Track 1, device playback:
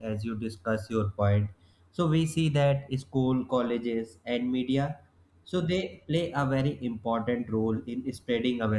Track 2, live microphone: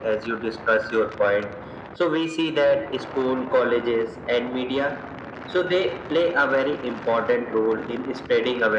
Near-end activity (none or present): none